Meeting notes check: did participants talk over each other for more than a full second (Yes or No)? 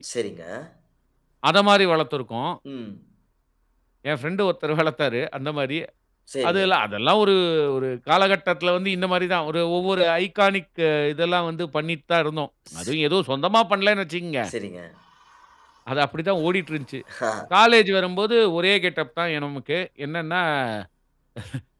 No